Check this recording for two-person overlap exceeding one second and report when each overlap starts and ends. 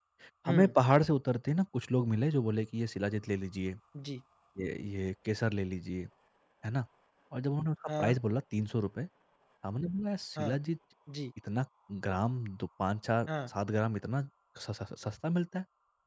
none

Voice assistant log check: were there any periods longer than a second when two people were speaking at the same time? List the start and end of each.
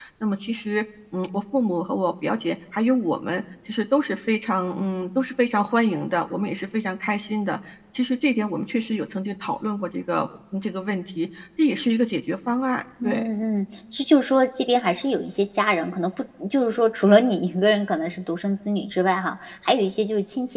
none

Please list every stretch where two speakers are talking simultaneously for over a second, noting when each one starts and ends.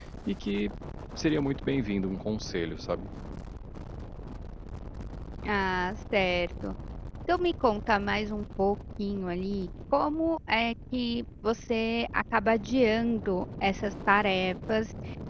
none

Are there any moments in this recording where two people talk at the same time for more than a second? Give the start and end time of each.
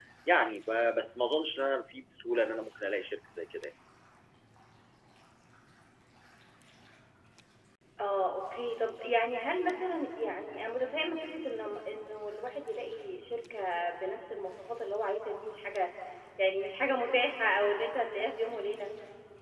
none

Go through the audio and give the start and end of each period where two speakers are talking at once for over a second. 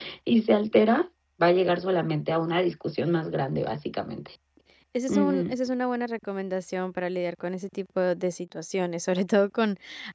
none

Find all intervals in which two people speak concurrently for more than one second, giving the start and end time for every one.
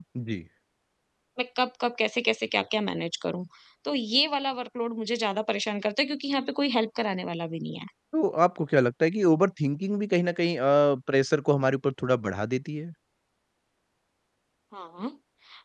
none

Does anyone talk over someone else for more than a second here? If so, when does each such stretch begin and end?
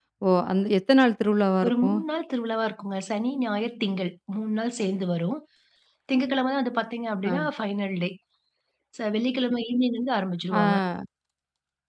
none

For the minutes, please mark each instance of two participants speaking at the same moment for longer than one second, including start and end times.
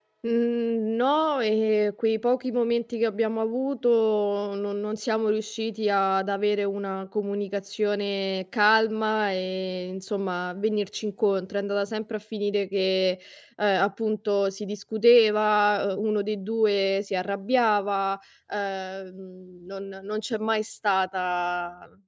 none

